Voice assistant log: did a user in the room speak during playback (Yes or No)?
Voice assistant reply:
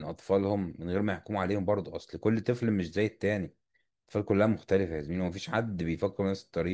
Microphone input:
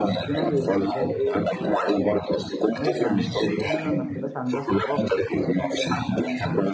Yes